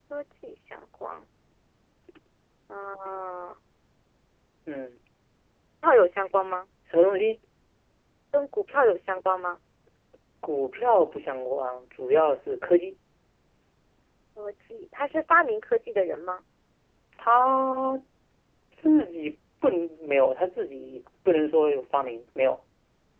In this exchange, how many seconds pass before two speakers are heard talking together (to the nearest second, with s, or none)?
none